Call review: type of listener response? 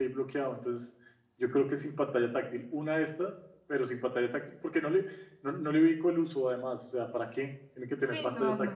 taking over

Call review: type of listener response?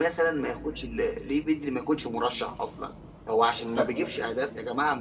listening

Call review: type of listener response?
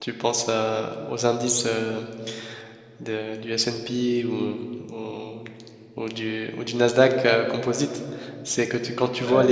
listening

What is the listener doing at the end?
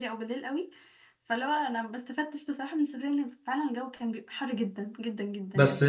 taking over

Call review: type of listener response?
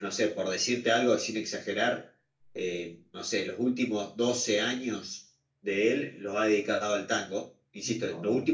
listening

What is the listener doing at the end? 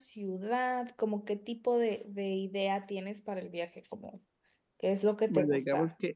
taking over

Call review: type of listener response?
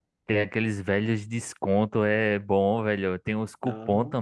listening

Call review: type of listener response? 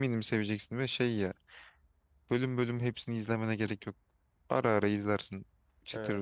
taking over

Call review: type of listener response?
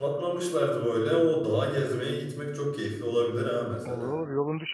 taking over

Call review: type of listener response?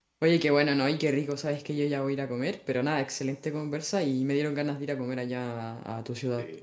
listening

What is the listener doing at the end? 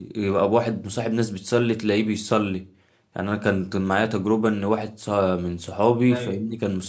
listening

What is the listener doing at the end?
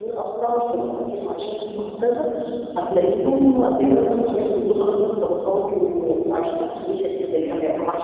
taking over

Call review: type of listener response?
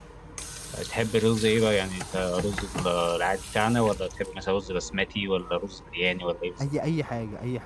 taking over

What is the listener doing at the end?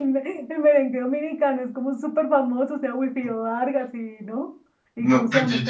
taking over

